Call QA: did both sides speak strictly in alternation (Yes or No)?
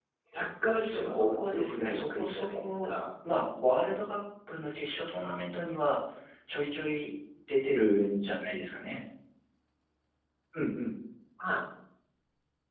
No